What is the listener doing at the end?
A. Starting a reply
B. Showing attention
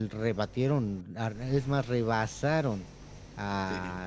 B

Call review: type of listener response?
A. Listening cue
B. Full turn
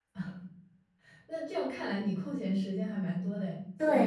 B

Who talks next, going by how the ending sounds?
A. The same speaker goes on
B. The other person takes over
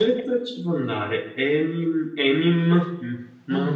B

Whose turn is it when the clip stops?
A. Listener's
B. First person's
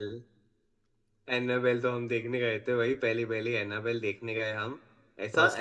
B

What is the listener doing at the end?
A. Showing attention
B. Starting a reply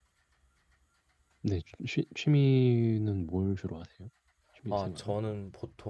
B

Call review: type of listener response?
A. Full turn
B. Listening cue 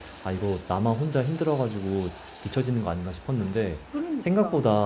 B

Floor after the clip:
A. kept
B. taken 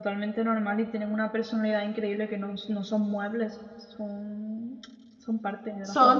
B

